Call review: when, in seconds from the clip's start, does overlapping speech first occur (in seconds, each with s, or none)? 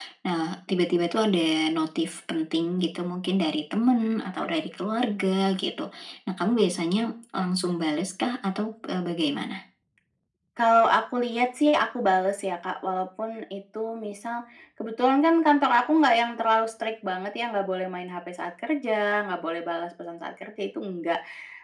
none